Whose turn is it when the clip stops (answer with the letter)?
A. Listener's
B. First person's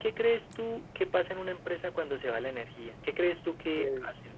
A